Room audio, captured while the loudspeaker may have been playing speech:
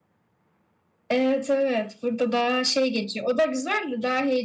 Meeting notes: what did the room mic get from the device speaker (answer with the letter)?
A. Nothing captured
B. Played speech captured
A